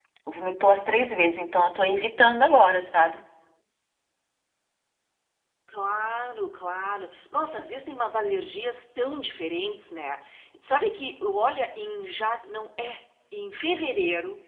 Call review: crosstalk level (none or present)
none